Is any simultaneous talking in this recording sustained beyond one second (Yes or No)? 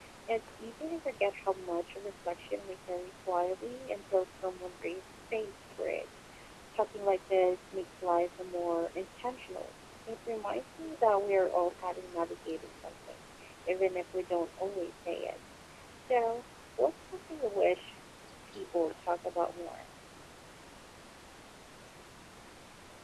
No